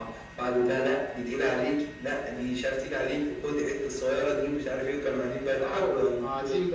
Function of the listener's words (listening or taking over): taking over